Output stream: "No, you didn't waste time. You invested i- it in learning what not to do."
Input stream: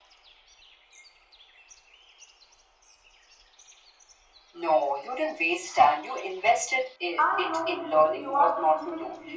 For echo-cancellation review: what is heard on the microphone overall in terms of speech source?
both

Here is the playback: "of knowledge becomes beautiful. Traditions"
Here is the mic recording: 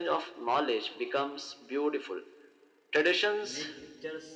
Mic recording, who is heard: both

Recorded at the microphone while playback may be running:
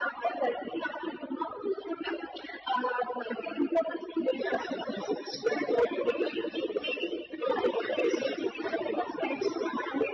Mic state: echo only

